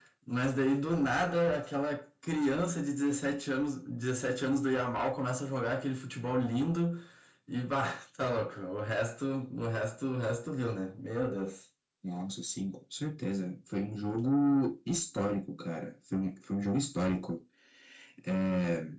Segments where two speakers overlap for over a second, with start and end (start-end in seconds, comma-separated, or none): none